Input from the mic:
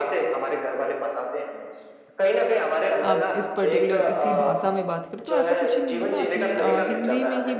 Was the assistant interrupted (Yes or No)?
Yes